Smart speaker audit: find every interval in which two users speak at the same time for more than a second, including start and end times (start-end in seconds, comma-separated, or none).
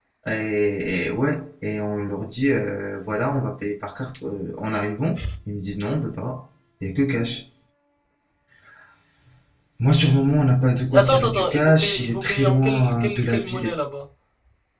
10.9-13.7